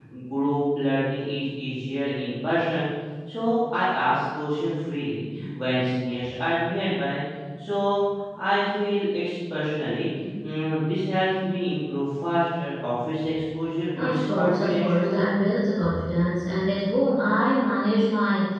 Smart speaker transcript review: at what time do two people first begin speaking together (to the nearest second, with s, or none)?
14 s